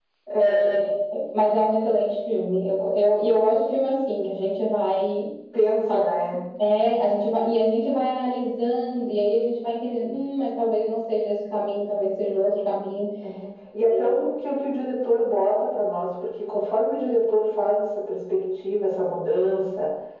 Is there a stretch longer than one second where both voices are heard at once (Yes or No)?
No